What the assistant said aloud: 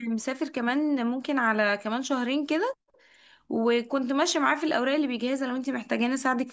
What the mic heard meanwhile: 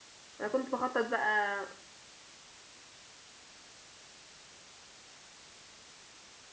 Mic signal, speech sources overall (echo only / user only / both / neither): user only